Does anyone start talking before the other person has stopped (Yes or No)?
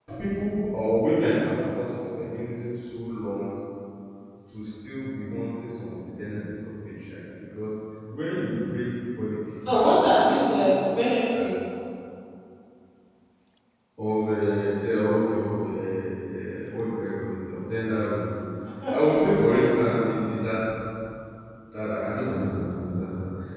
Yes